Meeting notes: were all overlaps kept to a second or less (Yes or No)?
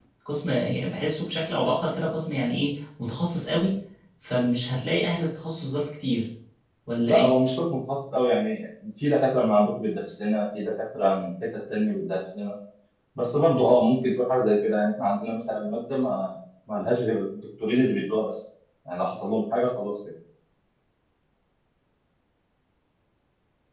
Yes